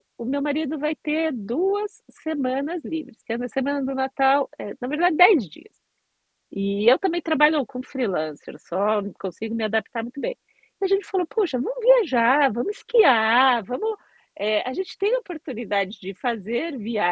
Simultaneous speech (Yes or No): No